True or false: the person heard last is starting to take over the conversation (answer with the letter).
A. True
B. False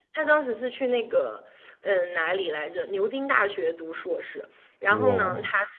B